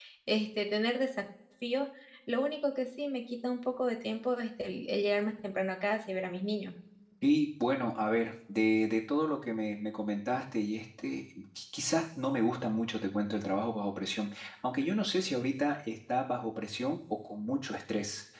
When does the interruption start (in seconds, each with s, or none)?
none